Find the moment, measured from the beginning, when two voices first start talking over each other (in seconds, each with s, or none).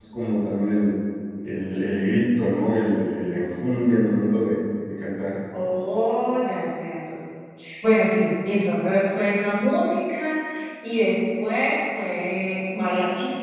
none